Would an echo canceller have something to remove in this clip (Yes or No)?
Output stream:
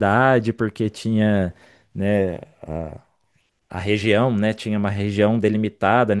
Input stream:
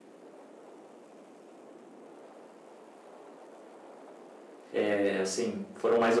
No